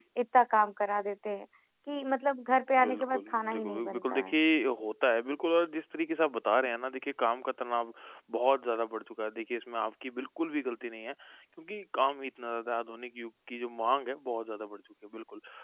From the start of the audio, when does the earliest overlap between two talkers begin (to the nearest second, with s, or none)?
3 s